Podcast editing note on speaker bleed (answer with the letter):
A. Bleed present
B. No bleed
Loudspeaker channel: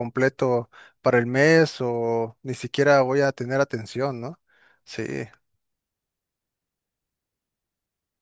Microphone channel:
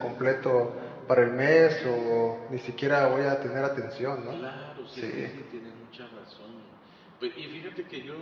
A